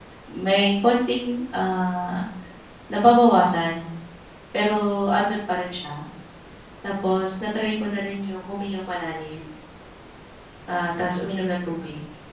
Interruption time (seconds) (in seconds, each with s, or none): none